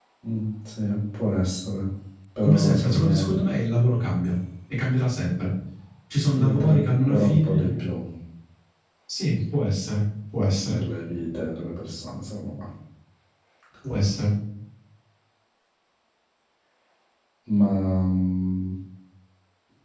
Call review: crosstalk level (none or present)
present